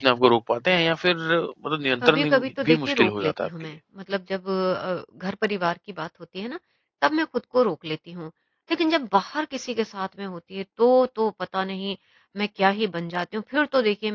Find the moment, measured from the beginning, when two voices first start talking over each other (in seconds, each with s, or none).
2.0 s